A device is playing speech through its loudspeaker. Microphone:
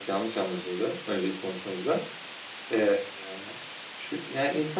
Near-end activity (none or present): none